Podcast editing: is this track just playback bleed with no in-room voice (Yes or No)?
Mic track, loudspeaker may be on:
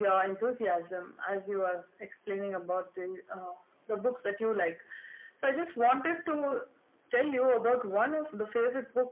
Yes